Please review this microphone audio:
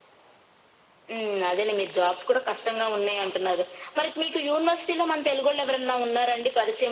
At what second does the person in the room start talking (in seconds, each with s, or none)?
none